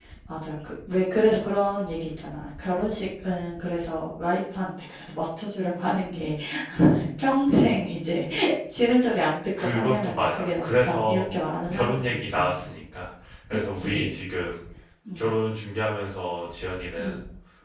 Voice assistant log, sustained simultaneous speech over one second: present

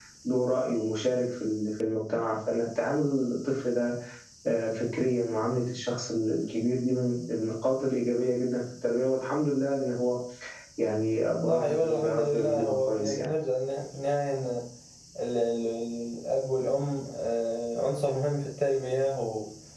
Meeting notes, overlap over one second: present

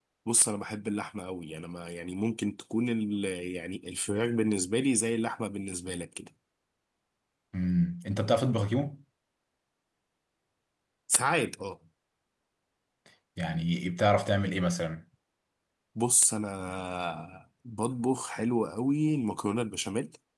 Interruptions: none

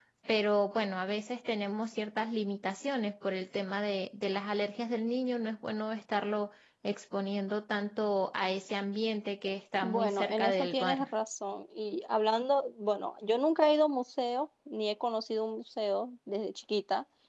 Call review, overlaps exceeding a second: present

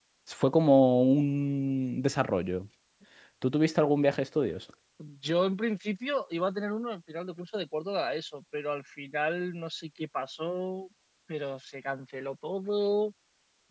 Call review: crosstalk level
none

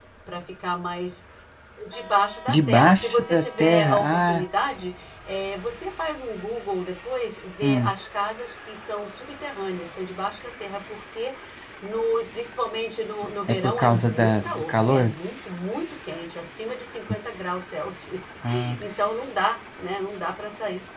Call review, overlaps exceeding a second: present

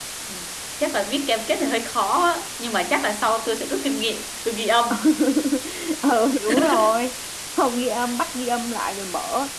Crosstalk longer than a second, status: none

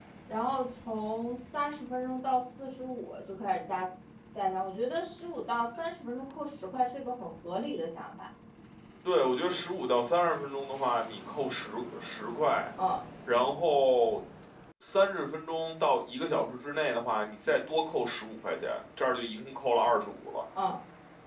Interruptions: none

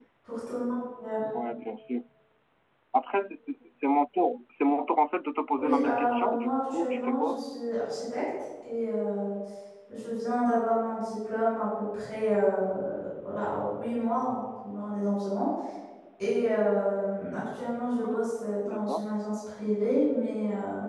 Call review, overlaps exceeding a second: present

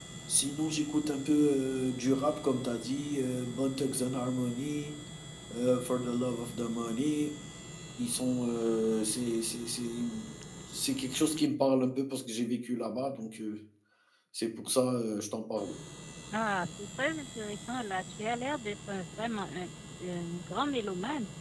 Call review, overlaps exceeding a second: none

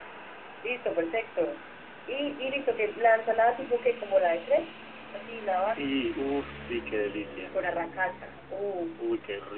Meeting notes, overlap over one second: none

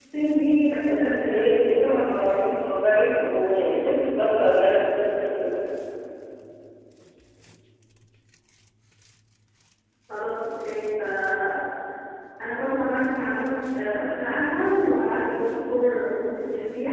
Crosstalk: present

